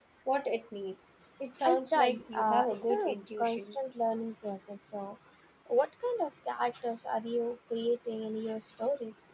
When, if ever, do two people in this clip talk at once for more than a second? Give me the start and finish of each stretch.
1.6-3.8

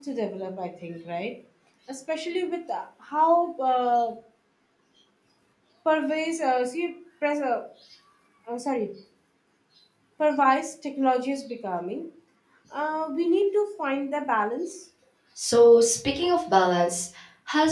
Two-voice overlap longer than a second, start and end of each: none

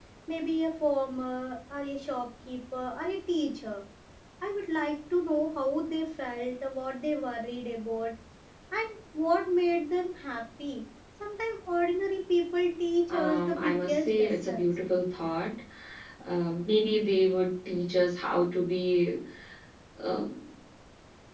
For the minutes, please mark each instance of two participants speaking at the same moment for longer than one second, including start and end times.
13.1-14.7

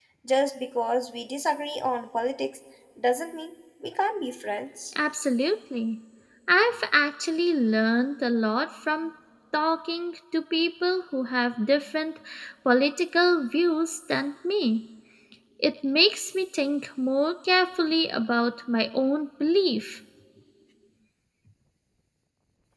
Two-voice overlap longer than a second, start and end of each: none

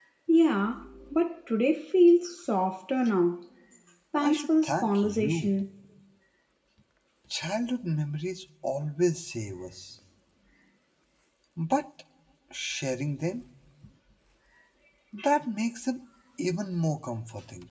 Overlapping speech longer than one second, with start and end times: 4.2-5.5

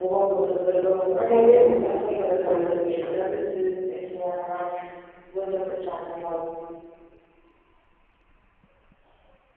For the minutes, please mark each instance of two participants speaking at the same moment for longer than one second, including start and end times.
1.1-3.4

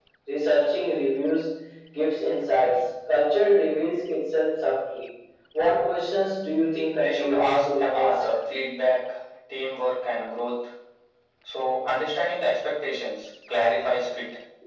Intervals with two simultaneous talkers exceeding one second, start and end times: 7.0-8.2

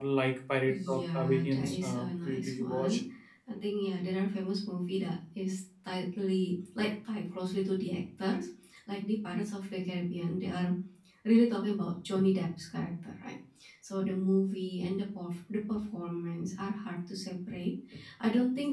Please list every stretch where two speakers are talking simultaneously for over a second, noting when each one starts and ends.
0.7-3.0

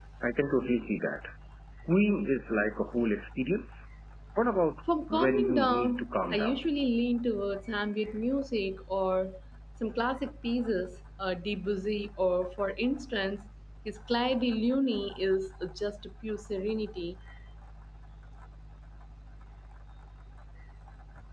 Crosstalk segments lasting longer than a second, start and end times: 5.1-6.6

